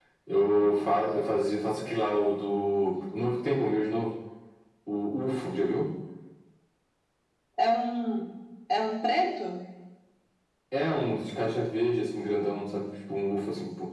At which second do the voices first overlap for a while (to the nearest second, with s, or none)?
none